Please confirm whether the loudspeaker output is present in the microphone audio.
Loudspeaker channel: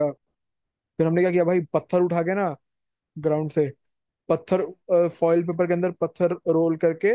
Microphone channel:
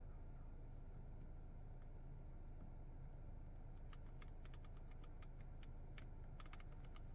No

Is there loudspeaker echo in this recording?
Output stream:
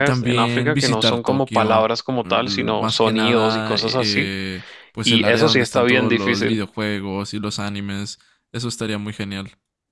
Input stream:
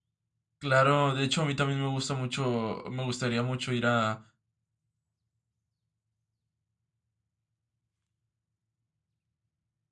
No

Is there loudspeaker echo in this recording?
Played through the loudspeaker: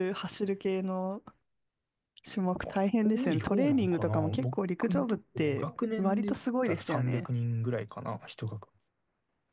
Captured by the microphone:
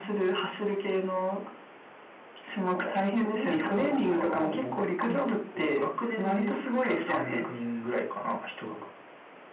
Yes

